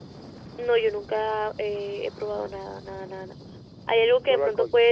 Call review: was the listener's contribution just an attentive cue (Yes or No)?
Yes